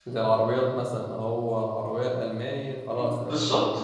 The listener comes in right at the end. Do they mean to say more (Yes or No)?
Yes